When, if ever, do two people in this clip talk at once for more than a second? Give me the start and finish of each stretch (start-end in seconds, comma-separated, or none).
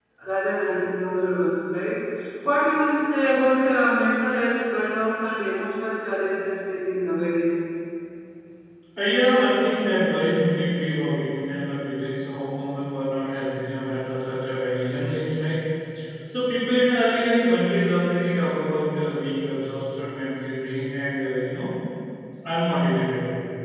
none